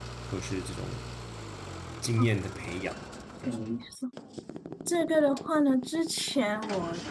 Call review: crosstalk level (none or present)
none